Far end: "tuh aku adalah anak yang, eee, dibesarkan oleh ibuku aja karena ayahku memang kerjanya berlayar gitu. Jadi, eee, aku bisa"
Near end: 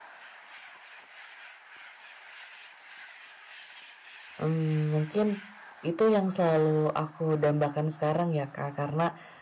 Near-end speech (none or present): present